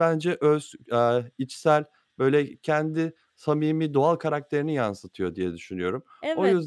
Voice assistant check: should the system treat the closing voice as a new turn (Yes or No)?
Yes